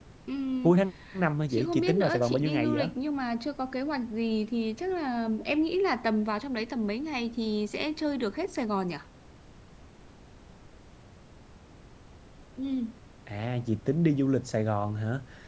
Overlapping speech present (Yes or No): Yes